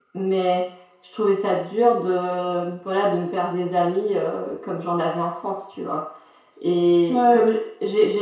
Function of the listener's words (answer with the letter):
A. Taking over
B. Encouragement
B